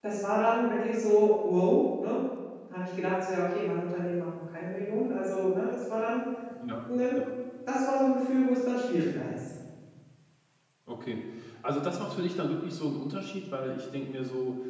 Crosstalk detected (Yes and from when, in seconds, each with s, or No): No